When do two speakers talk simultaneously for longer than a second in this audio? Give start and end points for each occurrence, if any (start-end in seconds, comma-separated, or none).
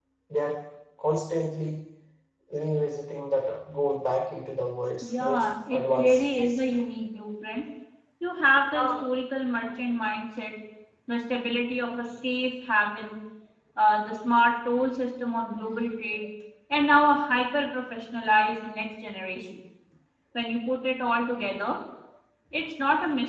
5.0-6.6